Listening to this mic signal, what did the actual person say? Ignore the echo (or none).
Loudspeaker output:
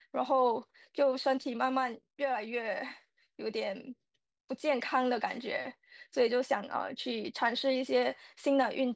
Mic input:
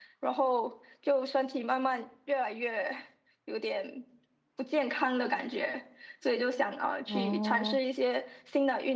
哦，